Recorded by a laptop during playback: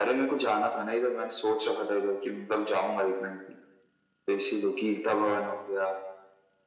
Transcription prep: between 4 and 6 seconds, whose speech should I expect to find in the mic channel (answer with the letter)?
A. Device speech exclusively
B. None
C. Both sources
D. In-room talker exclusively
A